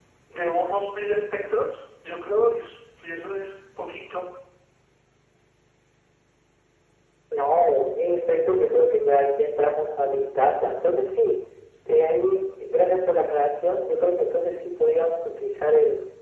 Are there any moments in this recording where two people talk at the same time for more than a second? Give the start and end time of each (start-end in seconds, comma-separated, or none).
none